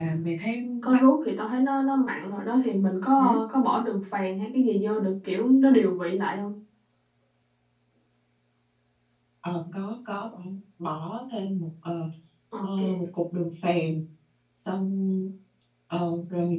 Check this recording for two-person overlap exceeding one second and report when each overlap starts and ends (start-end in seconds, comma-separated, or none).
none